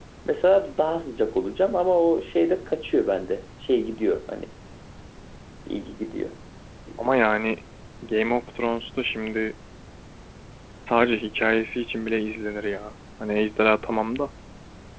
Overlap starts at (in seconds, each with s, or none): none